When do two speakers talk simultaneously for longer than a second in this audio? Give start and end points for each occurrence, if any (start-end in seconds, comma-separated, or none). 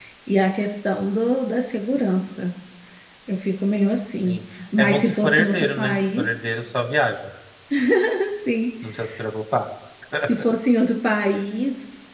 4.8-6.4